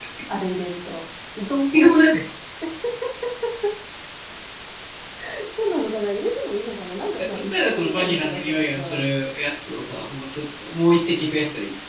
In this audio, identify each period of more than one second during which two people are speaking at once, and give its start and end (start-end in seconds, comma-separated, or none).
7.3-9.0